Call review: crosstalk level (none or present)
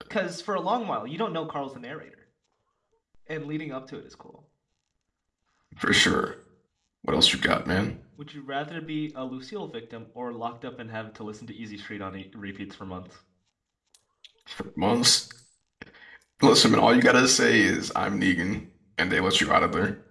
none